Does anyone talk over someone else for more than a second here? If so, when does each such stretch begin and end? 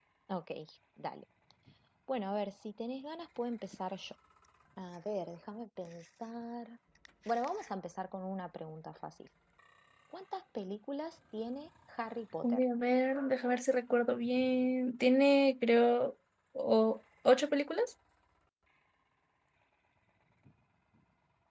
none

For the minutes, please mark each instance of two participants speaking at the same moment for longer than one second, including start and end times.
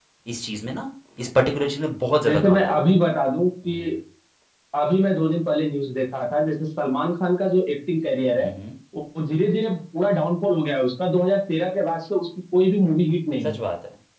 none

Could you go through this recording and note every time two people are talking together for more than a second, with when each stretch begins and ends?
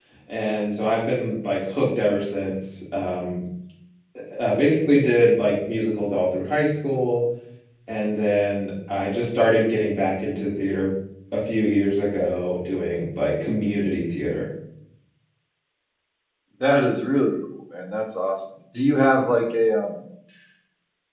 none

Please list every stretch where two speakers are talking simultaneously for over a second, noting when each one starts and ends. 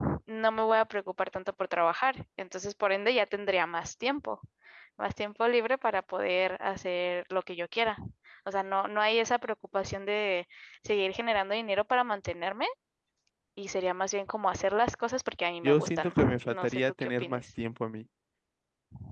15.6-17.4

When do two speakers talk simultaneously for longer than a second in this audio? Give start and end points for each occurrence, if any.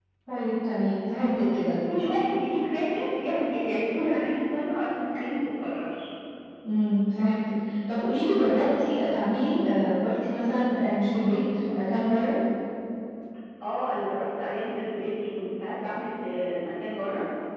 none

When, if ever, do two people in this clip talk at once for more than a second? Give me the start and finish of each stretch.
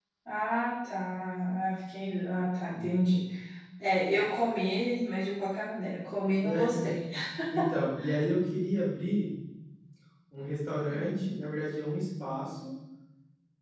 none

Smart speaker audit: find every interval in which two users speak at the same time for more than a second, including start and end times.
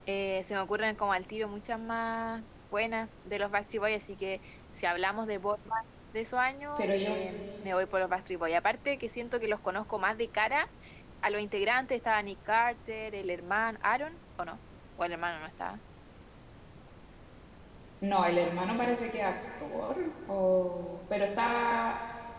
none

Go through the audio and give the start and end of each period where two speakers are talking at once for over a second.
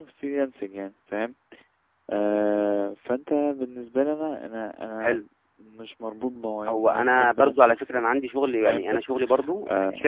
6.7-8.2

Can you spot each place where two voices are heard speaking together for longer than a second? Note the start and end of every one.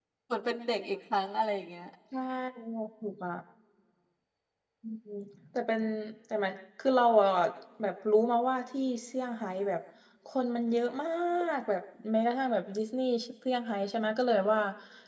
none

